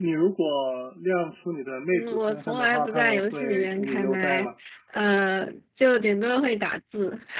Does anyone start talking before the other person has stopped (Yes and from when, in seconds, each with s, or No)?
Yes, from 1.9 s